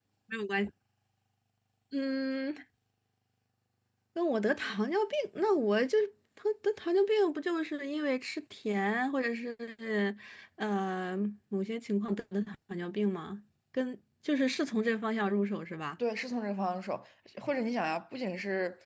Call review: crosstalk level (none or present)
none